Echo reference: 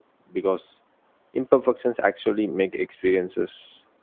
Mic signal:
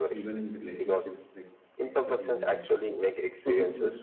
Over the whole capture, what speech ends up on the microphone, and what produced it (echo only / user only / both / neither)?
both